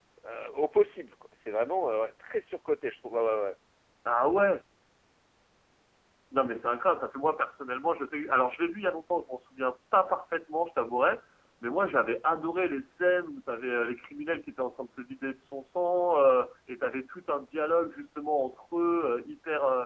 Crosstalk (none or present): none